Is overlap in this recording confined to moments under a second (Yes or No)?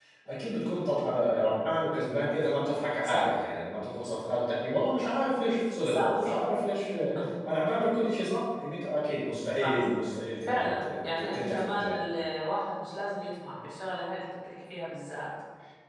No